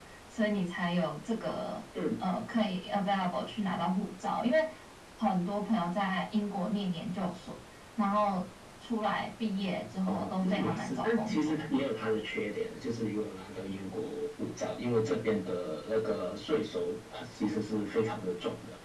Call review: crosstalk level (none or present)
present